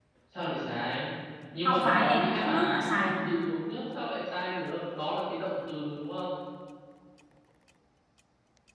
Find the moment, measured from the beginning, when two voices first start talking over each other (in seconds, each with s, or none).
1.6 s